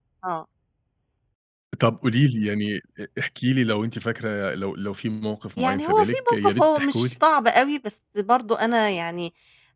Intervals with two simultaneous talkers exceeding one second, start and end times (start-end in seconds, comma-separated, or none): 5.6-7.1